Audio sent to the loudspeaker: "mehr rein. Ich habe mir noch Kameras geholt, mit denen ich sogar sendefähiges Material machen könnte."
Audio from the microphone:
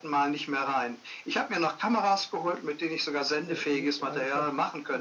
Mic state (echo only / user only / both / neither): both